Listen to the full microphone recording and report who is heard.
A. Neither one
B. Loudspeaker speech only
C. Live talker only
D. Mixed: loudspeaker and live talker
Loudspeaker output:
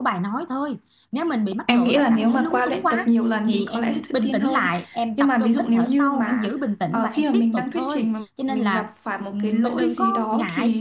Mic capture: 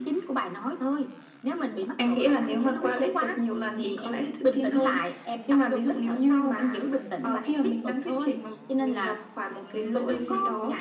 B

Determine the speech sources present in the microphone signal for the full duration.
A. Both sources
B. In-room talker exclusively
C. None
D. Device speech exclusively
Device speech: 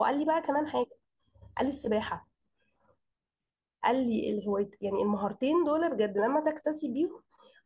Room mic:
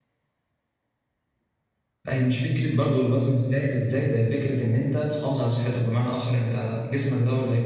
B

